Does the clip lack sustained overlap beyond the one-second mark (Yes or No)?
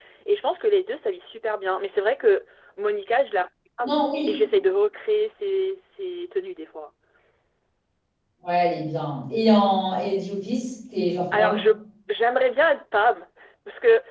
Yes